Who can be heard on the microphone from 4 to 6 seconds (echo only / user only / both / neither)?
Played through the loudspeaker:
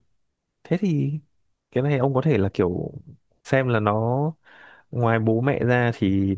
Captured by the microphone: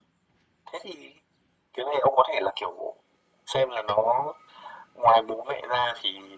echo only